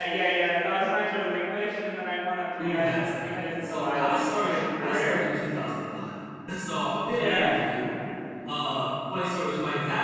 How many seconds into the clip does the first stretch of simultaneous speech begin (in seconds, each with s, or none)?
2.6 s